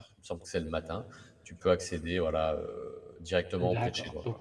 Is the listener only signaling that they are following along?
No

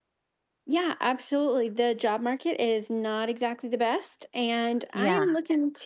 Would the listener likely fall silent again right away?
Yes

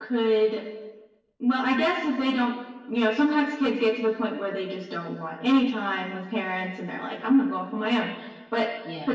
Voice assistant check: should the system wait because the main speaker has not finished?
Yes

